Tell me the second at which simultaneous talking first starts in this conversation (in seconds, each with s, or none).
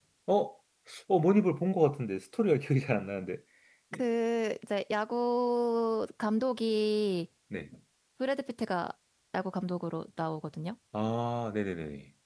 none